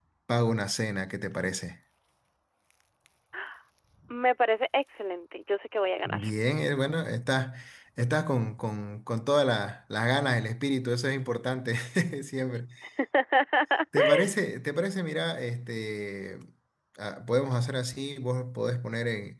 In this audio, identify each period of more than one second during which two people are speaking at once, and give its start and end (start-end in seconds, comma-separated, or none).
none